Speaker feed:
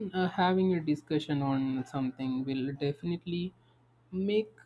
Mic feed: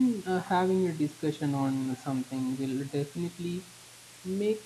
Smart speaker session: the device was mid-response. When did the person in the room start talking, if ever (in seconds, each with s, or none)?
none